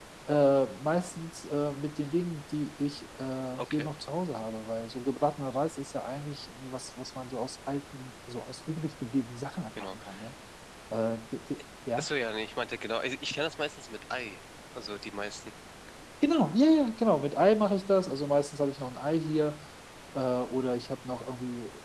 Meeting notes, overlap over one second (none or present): none